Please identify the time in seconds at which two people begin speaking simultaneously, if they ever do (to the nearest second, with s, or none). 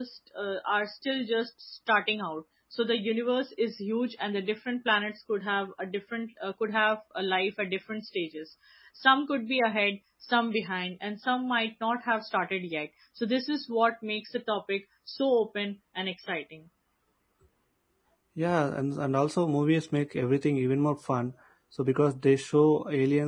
none